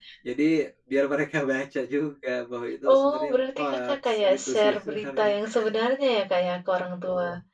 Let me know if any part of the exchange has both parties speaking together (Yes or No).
Yes